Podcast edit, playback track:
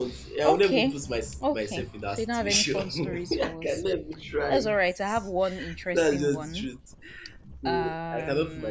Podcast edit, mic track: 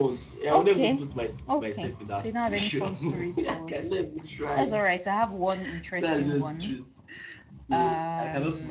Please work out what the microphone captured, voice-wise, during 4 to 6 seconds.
echo only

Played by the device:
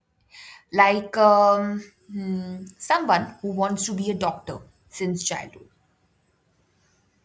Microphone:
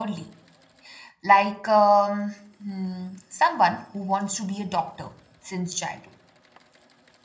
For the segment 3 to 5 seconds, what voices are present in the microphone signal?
echo only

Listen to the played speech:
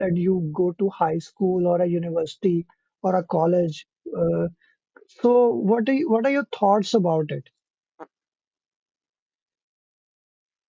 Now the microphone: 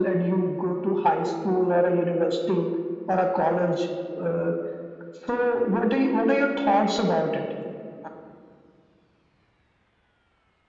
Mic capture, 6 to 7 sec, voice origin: echo only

